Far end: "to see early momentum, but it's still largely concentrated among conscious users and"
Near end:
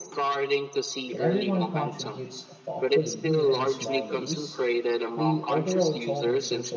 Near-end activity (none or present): present